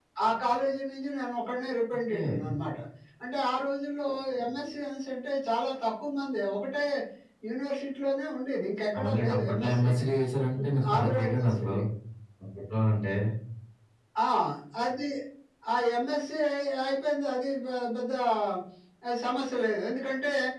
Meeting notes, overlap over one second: present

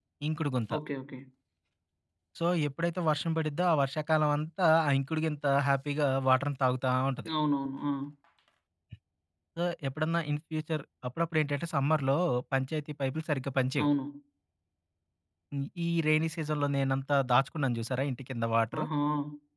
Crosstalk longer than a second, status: none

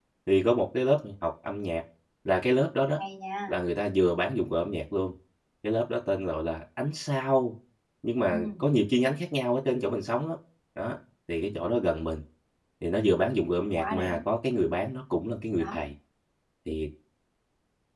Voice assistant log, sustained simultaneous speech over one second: none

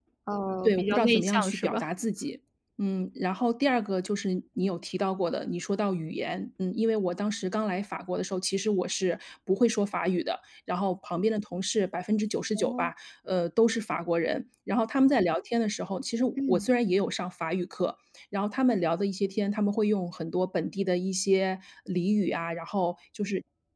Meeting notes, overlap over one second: present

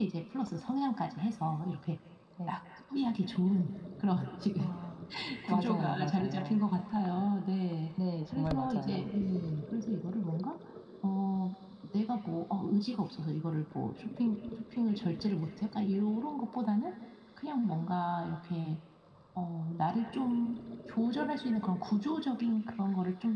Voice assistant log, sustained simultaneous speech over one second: present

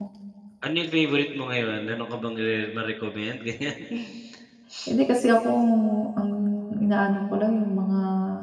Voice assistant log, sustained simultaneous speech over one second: none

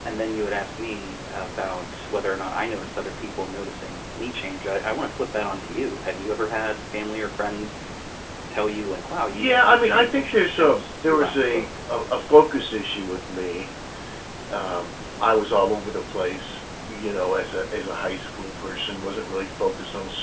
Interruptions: present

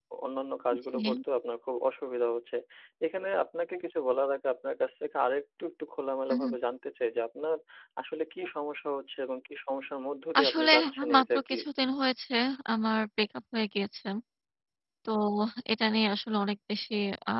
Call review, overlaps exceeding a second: present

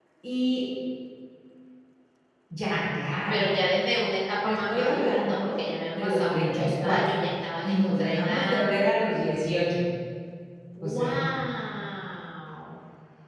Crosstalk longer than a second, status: present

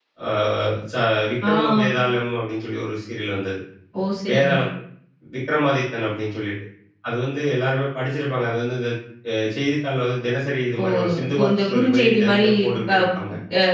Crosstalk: present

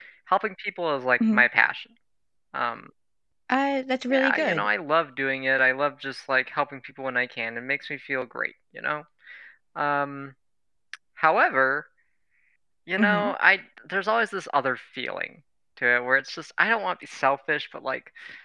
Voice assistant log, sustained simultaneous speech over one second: none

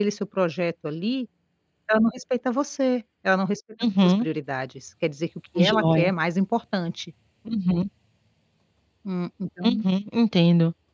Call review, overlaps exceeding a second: none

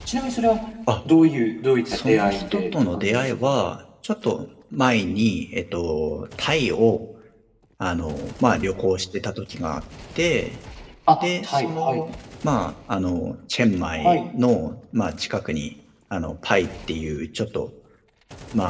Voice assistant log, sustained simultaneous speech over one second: present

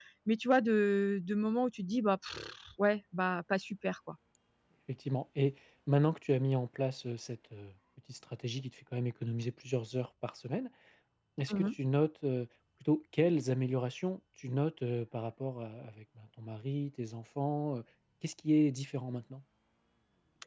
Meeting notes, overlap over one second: none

